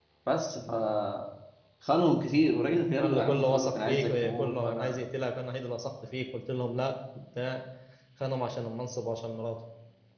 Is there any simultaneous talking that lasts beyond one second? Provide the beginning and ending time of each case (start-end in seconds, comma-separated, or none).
3.0-5.0